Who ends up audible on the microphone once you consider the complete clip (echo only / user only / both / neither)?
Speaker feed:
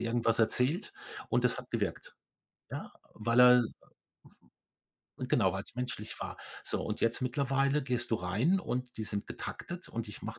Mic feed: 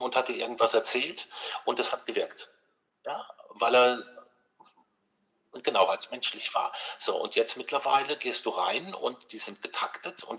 echo only